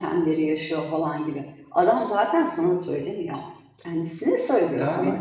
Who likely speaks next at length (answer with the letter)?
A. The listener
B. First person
A